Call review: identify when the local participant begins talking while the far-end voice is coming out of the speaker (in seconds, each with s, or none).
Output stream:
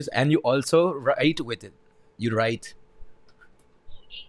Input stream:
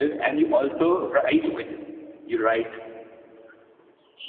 none